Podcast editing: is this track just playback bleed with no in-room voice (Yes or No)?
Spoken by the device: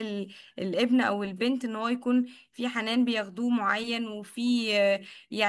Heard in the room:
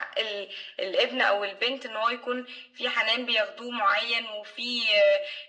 Yes